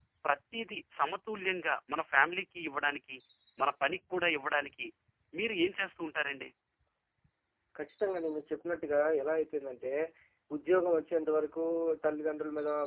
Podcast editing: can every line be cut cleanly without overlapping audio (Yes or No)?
Yes